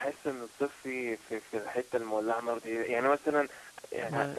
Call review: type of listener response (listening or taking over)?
listening